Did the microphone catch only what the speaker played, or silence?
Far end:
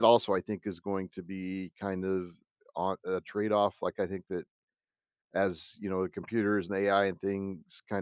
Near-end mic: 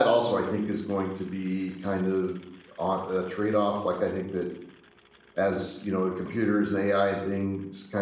Yes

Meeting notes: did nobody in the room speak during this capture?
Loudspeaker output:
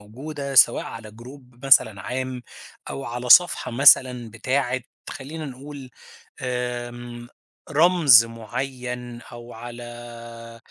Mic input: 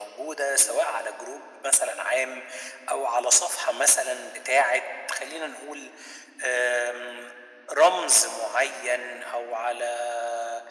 Yes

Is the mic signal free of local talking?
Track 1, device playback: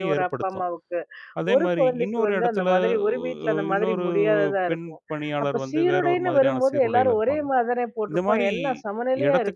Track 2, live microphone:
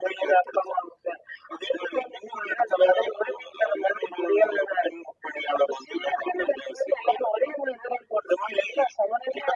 Yes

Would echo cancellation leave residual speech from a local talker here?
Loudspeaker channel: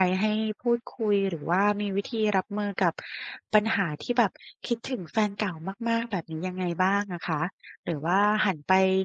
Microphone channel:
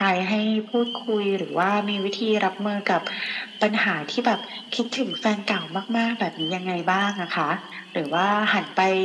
No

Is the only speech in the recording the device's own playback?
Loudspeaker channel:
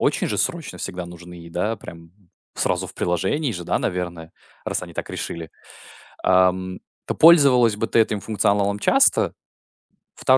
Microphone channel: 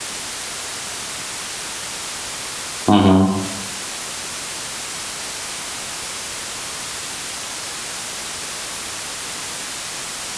No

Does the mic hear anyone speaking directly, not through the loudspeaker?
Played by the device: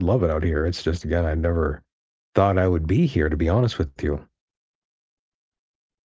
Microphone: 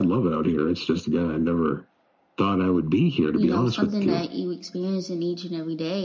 Yes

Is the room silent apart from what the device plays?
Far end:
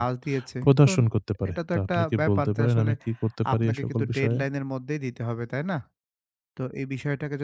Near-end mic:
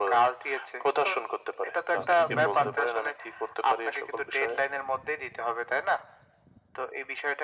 No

